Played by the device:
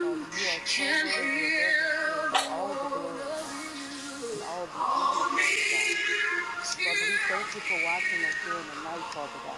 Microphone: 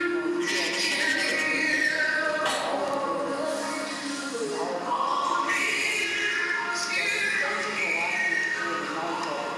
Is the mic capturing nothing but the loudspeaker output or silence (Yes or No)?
Yes